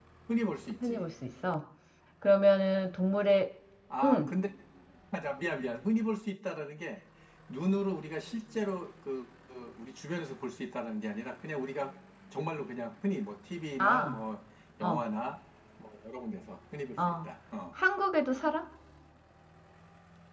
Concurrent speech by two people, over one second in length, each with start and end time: none

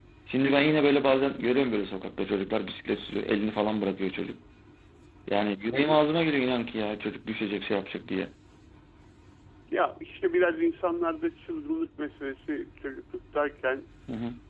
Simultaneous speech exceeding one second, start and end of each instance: none

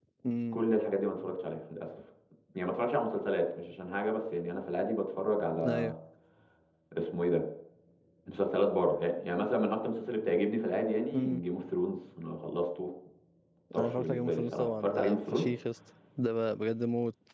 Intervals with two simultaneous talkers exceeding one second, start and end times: 13.8-15.4

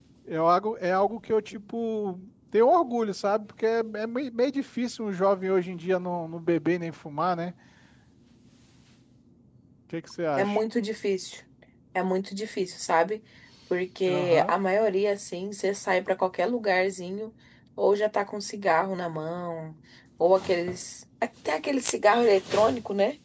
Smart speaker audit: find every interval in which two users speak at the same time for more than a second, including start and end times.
none

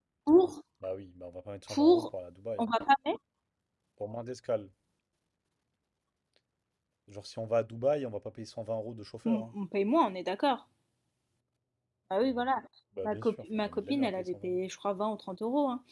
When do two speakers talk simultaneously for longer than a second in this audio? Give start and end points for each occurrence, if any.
13.0-14.6

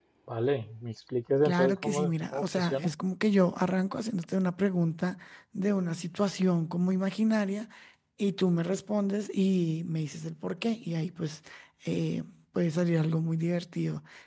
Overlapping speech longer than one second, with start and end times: 1.4-2.9

